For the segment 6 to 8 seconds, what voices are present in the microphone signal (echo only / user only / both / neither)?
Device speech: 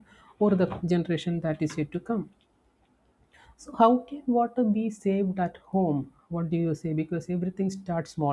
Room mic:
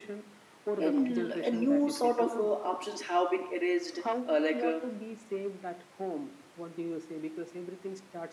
echo only